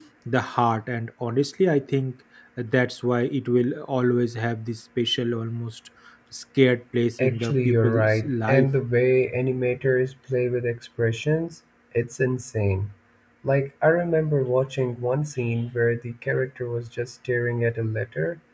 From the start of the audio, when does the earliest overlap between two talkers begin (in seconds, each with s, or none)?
7.2 s